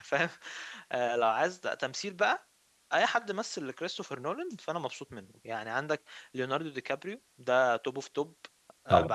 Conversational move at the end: listening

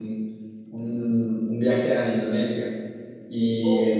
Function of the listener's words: listening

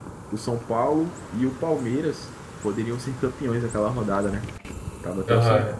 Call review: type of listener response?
taking over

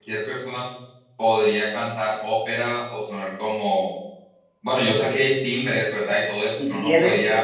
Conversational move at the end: taking over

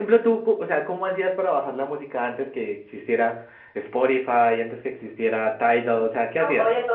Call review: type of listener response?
taking over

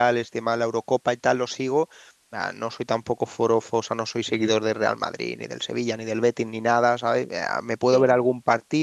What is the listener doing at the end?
listening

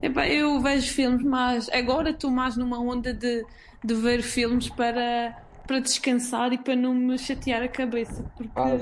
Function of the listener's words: taking over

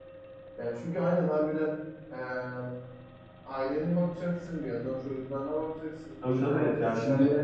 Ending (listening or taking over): taking over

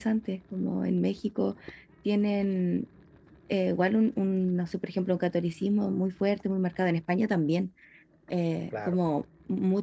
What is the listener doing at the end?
listening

